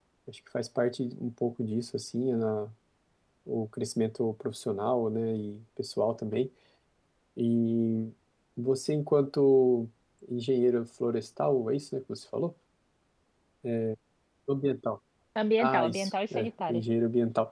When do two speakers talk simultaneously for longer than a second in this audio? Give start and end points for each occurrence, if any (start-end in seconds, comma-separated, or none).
15.6-16.8